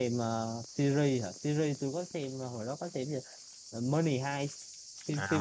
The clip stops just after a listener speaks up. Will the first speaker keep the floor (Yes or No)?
No